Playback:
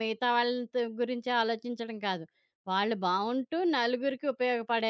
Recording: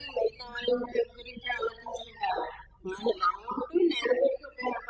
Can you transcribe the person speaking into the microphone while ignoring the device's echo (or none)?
none